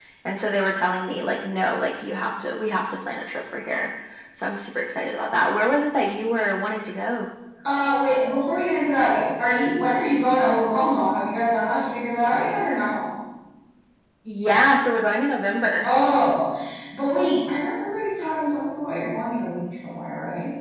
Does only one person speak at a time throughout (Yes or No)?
Yes